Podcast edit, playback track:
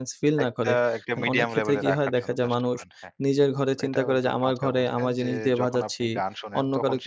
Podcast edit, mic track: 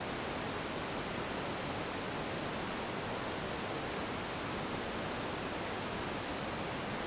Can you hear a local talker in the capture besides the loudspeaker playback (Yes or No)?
No